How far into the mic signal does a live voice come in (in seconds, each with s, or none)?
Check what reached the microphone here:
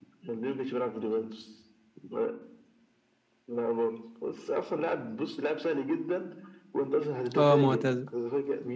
7.4 s